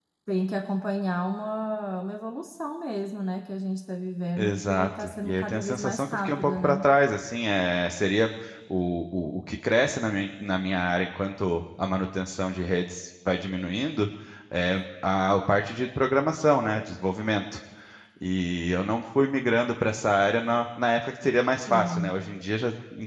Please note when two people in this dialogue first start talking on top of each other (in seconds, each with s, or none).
4.4 s